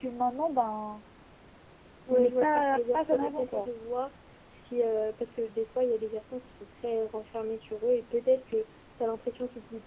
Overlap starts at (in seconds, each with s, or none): 2.1 s